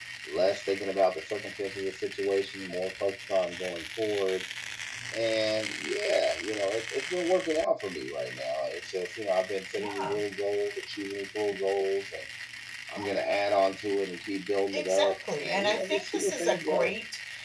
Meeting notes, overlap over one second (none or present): present